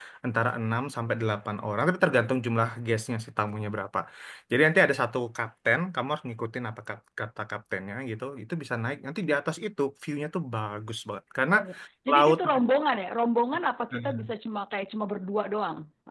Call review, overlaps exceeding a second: none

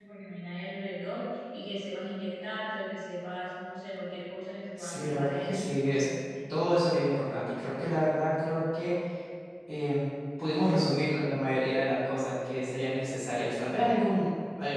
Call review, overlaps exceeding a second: present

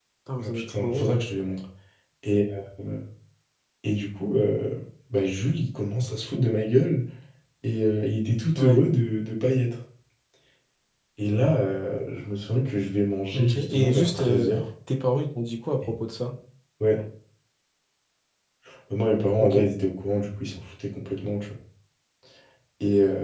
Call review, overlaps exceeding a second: present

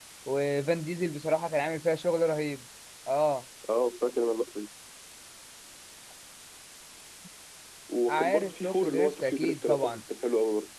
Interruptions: present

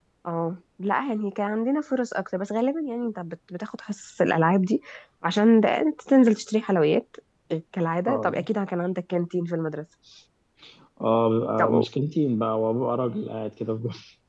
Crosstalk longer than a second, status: none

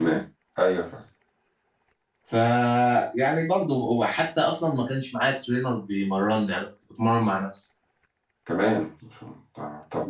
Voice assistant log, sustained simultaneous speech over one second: none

